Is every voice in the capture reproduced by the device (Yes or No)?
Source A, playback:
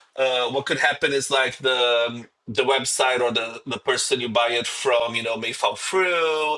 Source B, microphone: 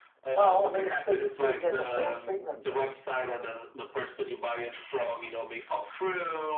No